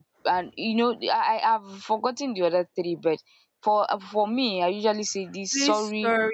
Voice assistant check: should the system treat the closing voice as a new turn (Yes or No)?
Yes